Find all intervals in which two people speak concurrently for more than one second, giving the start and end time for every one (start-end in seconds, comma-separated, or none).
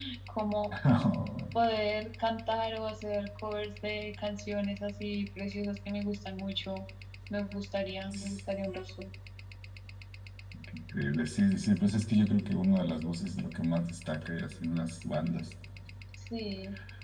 none